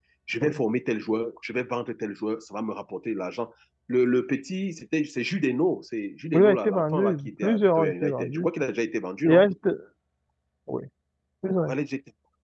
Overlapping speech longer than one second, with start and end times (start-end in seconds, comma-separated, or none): 6.3-8.5